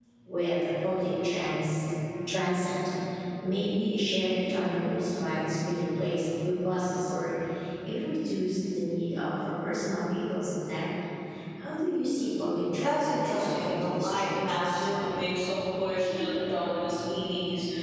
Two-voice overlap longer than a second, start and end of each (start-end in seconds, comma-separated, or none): 12.8-14.9